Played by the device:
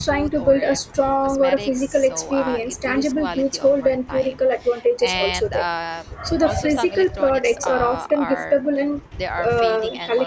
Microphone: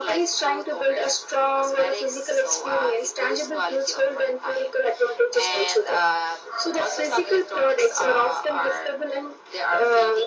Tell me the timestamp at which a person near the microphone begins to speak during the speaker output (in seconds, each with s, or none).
none